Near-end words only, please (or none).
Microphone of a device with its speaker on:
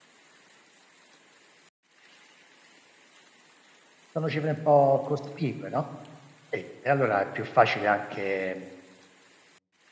sono cifre un po' cospicue, no. Sì, e allora è più facile anche